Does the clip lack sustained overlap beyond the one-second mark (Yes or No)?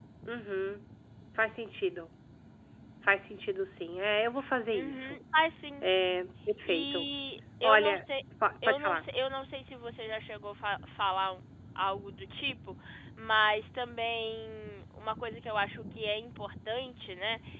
Yes